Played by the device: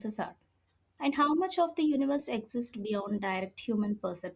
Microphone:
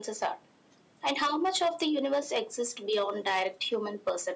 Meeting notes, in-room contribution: none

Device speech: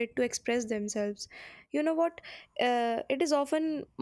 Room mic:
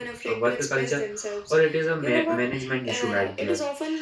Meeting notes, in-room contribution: present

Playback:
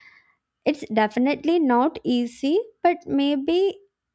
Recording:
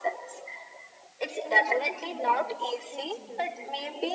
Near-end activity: present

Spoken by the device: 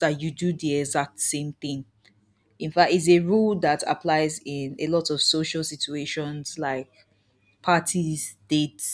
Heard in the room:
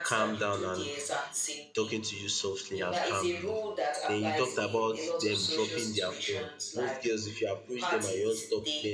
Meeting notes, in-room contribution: present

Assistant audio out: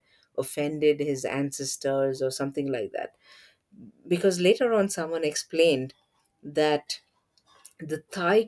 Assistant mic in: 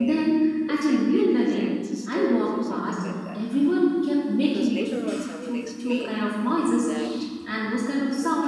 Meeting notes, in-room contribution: present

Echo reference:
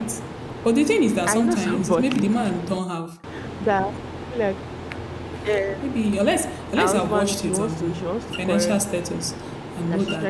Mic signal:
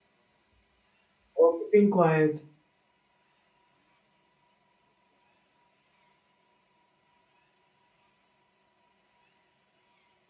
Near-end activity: present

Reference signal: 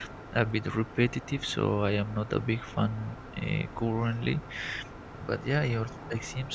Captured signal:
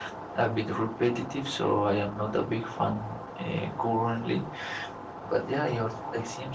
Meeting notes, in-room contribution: none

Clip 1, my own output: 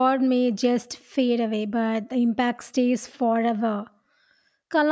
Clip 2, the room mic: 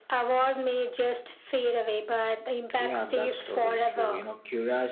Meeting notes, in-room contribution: present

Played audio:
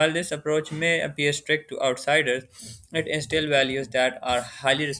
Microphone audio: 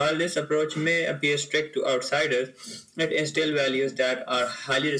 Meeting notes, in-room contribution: none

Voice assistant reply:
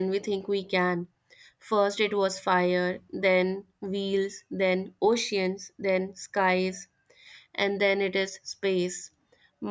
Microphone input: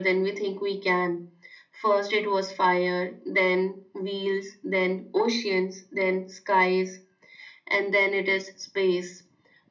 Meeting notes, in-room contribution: none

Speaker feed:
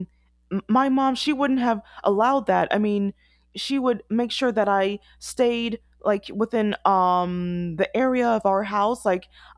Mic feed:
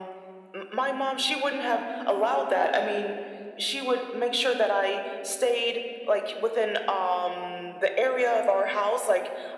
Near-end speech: none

